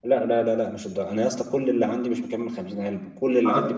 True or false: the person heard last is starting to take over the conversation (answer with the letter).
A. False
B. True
A